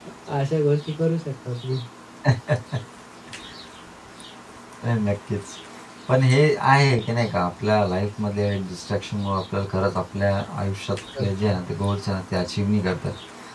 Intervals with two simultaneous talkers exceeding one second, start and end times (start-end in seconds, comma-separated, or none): none